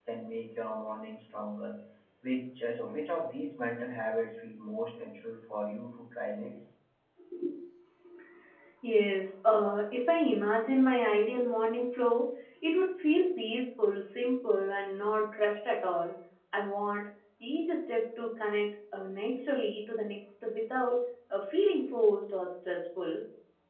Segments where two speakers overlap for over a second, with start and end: none

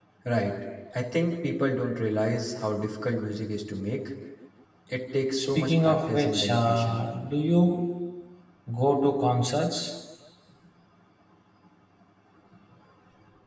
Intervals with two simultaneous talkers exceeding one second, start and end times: 5.4-7.0

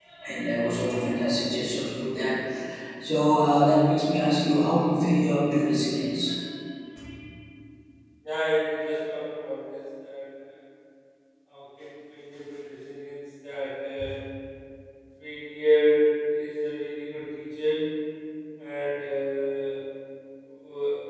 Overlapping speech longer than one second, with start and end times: none

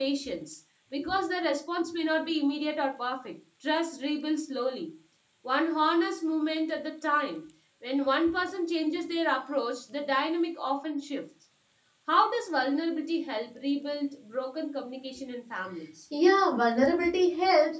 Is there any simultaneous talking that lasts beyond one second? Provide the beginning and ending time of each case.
none

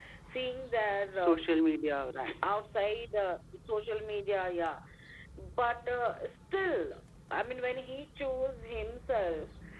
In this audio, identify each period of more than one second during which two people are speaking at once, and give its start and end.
none

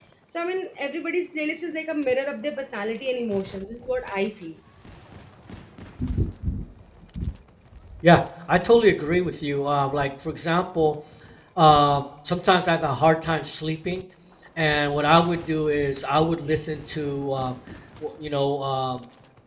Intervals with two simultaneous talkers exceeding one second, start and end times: none

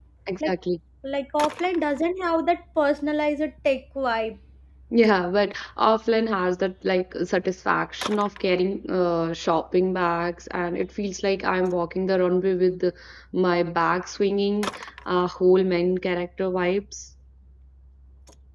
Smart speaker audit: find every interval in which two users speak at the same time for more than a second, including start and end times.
none

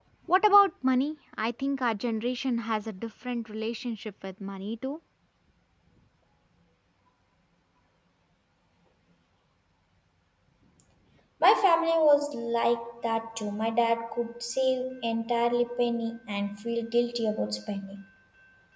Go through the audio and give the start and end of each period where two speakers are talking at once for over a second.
none

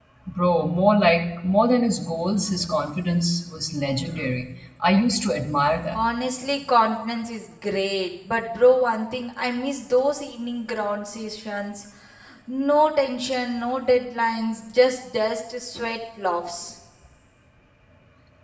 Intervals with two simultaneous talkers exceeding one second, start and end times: none

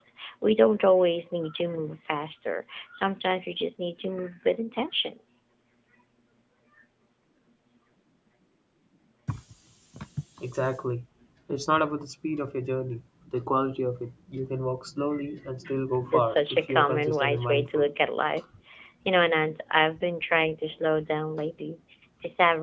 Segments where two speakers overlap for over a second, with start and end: 16.1-17.9

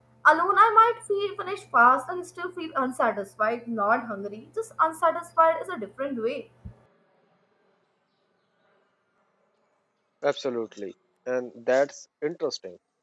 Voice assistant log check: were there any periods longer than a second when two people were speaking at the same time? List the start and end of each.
none

